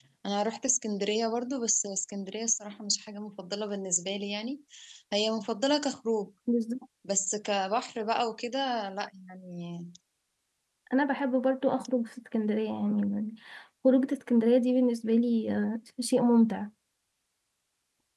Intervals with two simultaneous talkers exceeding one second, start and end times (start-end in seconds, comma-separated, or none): none